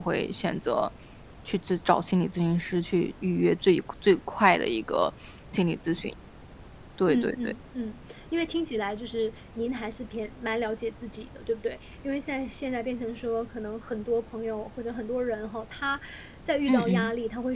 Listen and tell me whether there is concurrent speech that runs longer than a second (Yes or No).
No